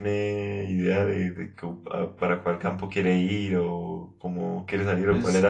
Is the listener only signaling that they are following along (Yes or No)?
No